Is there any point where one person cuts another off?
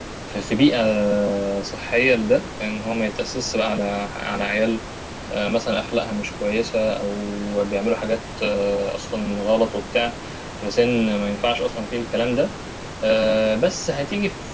No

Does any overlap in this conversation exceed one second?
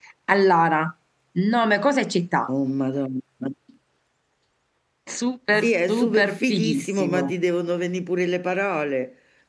Yes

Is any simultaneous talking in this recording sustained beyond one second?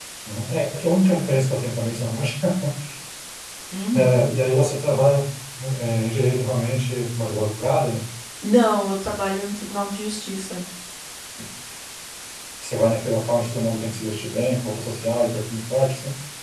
No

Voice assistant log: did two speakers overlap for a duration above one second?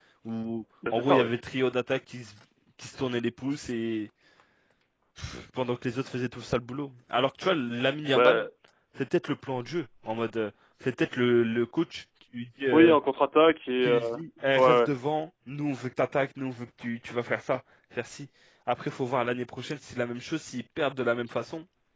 No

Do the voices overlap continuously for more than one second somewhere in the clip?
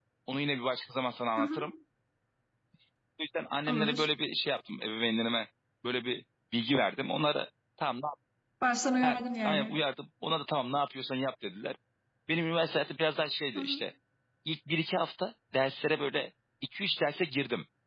No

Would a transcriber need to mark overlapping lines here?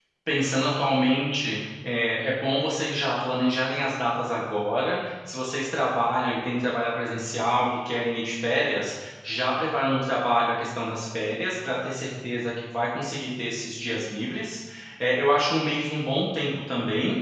No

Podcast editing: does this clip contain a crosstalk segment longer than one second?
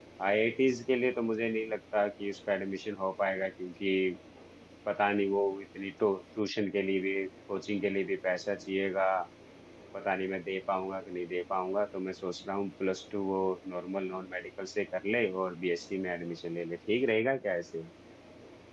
No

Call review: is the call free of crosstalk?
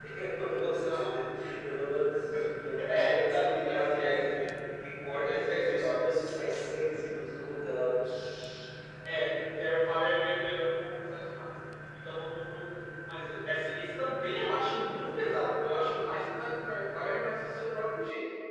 No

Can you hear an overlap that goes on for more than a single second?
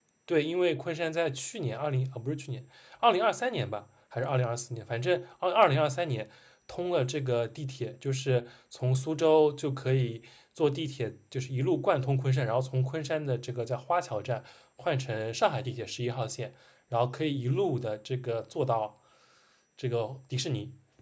No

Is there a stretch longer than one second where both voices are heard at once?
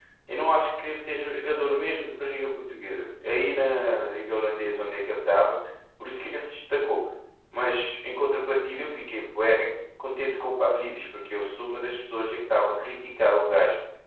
No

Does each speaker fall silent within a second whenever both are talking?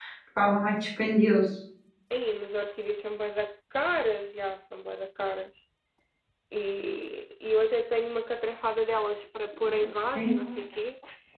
Yes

